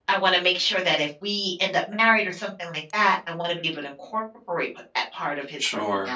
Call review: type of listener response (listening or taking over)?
taking over